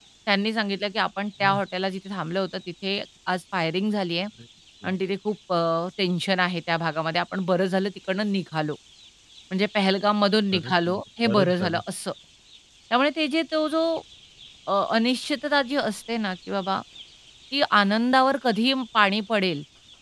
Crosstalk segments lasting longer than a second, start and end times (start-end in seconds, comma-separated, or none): 10.5-11.8